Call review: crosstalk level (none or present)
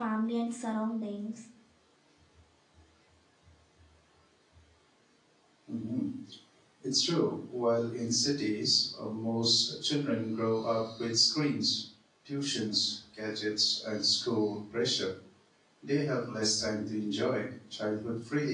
none